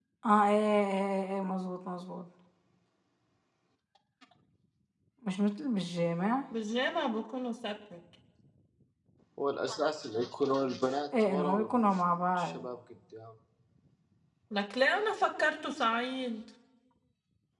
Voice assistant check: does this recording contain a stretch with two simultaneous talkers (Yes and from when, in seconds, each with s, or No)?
Yes, from 11.1 s